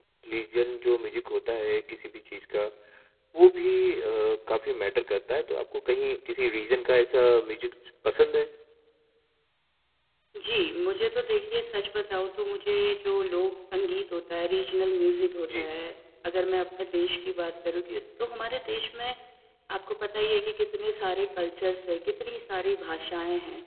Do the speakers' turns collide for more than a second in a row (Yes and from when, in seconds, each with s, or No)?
No